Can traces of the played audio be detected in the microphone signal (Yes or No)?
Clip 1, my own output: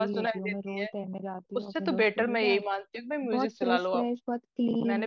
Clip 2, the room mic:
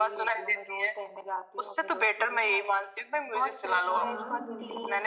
Yes